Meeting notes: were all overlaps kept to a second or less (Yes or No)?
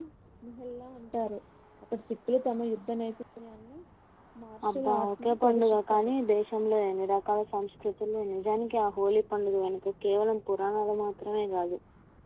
No